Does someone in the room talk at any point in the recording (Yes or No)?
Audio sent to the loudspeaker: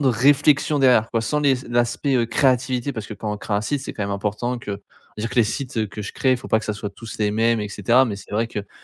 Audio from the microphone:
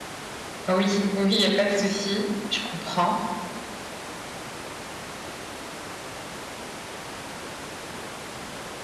Yes